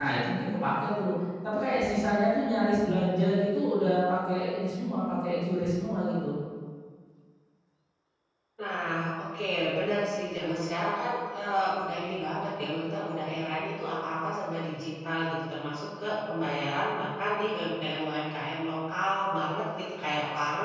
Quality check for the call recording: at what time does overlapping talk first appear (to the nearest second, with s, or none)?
none